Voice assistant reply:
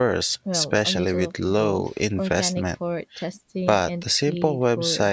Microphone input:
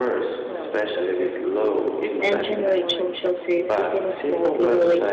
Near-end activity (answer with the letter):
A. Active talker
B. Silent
A